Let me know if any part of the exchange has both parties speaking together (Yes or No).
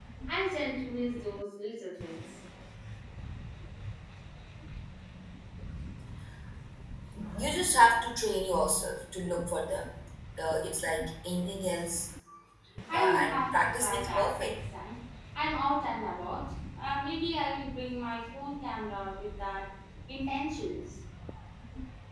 Yes